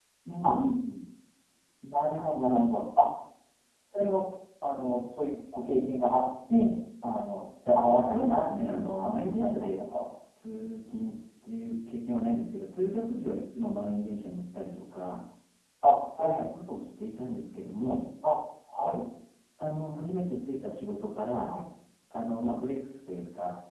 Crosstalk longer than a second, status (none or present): present